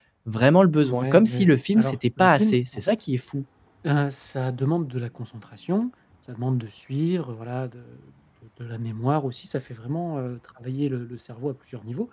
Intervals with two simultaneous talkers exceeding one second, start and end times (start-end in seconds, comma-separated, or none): 0.8-3.0